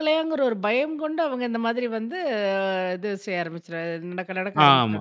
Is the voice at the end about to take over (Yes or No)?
Yes